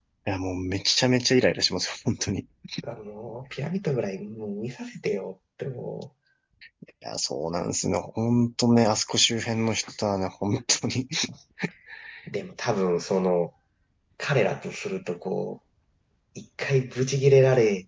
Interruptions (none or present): none